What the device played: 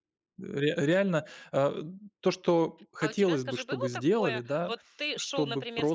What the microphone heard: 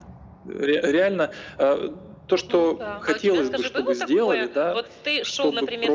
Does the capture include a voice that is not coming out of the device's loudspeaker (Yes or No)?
Yes